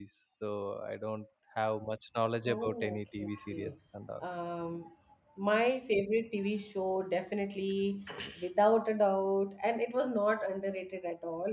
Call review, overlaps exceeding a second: present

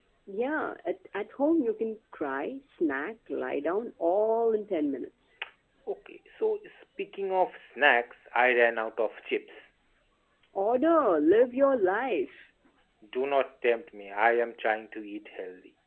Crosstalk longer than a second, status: none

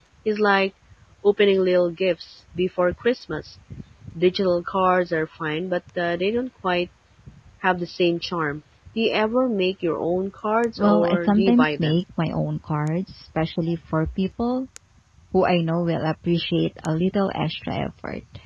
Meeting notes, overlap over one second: present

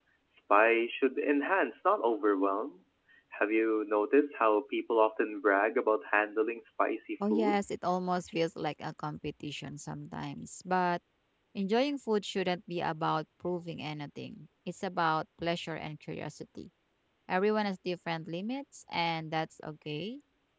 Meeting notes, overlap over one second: none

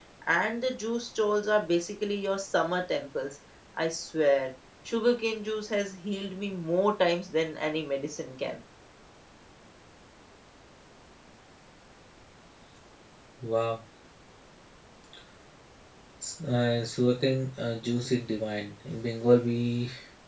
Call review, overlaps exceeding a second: none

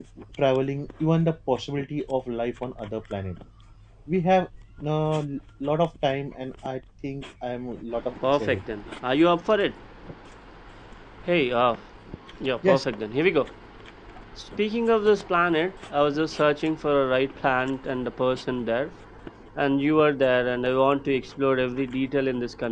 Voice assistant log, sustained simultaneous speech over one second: none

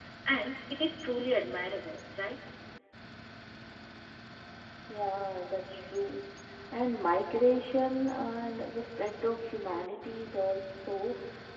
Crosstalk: none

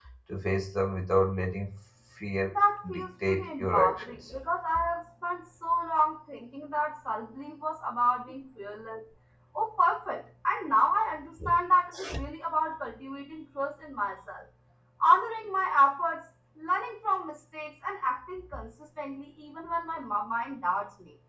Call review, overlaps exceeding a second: present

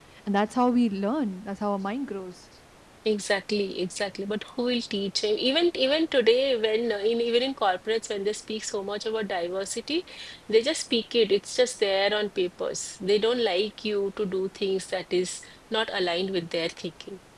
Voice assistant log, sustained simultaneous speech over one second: none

